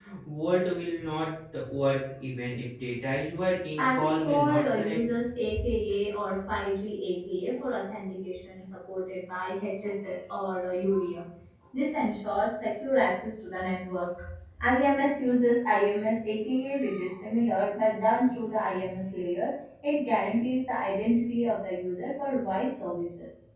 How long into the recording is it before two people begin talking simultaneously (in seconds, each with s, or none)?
3.8 s